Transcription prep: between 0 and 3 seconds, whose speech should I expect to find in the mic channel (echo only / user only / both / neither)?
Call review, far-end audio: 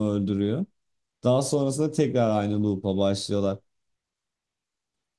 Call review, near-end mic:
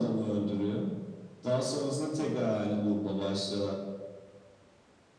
echo only